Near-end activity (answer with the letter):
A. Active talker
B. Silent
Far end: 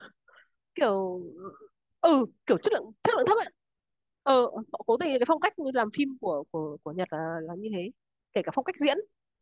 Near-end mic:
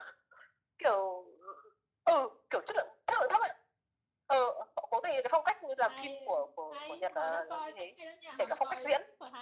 A